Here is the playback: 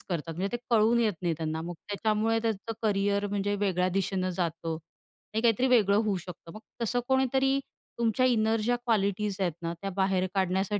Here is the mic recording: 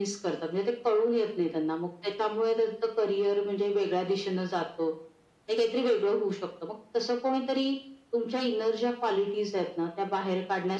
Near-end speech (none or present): none